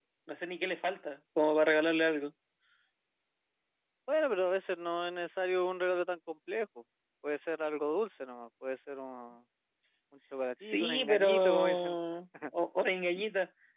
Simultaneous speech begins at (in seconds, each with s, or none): 10.6 s